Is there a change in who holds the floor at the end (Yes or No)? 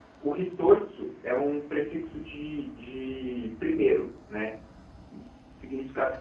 No